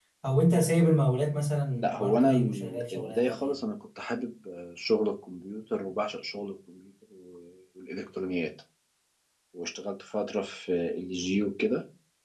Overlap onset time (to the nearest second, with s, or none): 2 s